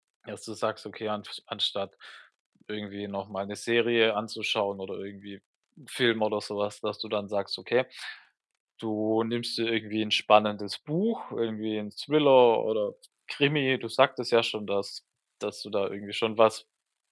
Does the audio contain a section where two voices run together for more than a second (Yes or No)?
No